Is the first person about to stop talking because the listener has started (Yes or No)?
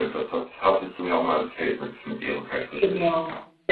Yes